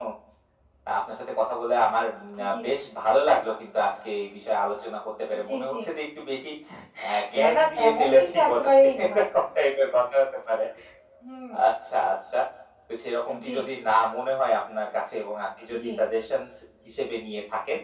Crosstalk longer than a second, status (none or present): present